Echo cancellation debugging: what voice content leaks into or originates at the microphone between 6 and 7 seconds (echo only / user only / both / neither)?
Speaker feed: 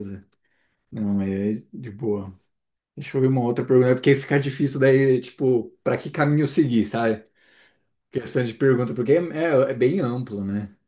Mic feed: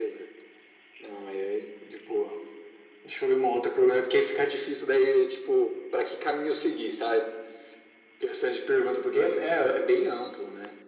echo only